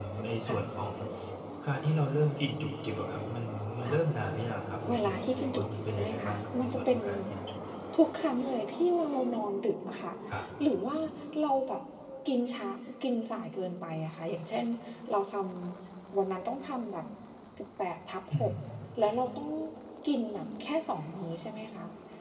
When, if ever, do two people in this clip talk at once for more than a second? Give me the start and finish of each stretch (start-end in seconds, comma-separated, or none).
4.9-7.0